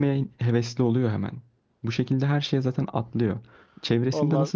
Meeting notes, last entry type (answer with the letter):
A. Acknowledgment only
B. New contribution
A